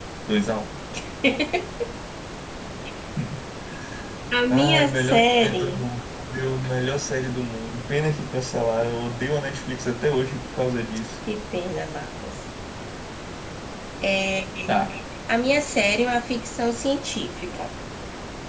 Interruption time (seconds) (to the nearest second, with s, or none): 5 s